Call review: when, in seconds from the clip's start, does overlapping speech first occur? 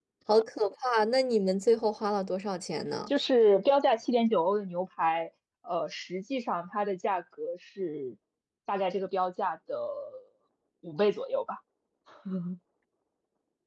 none

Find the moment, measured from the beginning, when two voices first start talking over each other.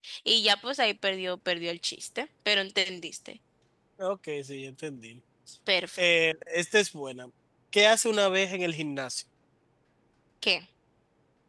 none

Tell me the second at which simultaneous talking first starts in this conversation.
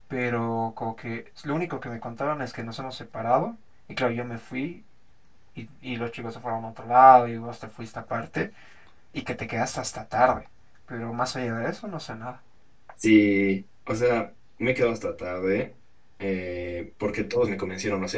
none

